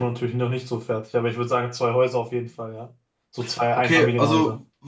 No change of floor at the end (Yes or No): No